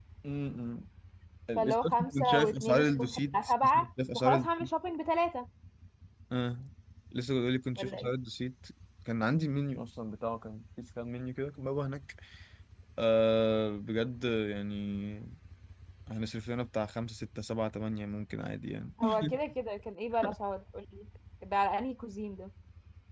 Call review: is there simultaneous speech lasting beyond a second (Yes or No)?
Yes